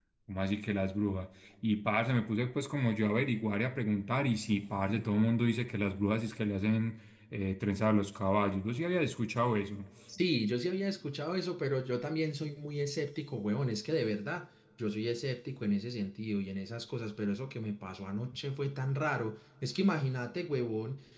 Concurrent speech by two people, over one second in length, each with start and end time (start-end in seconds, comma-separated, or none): none